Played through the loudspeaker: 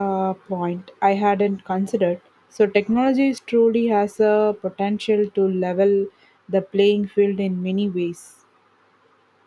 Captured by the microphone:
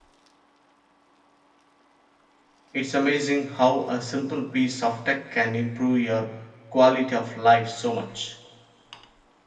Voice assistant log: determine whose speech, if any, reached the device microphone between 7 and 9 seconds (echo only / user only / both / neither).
user only